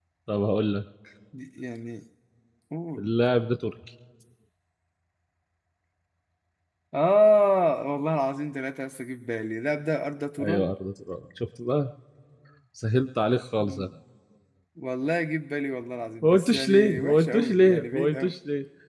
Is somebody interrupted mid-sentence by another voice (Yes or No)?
Yes